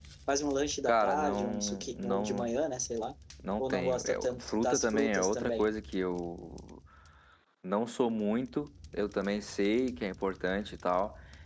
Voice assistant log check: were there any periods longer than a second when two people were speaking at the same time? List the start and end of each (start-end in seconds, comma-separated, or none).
0.8-2.5, 3.6-5.7